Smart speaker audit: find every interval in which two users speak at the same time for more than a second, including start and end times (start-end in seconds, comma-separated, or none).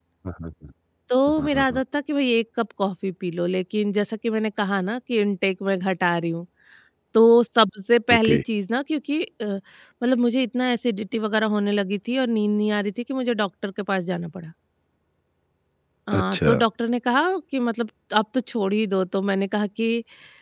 none